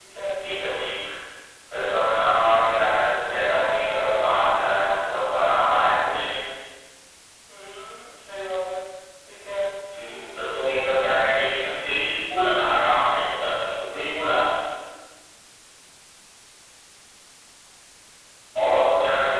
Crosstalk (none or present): none